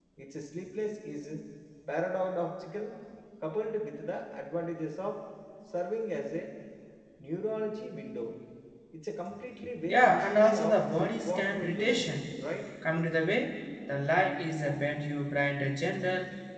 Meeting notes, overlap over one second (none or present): present